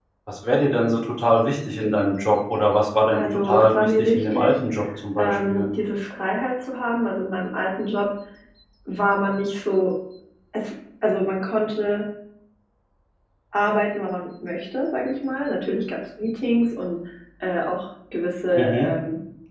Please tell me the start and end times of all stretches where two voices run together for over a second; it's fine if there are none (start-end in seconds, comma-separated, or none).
3.1-4.5